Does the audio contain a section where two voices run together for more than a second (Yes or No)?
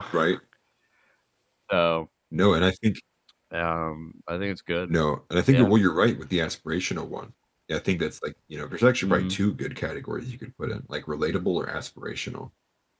No